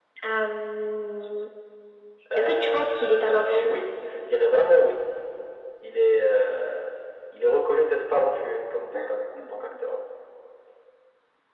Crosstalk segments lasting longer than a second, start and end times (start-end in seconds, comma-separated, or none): 2.4-3.8